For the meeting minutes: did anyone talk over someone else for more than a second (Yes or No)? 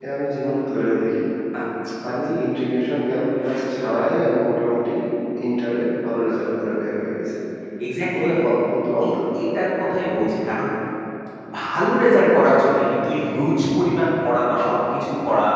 No